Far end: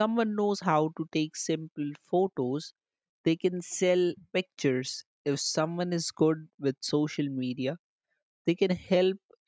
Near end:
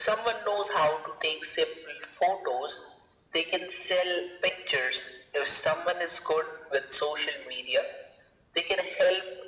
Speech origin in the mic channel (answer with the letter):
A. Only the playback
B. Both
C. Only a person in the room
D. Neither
A